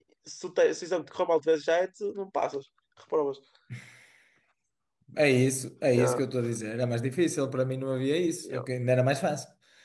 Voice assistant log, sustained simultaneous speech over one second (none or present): none